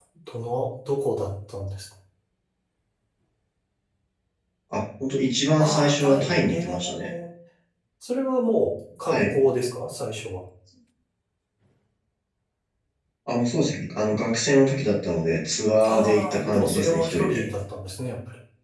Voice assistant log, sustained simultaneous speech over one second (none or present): present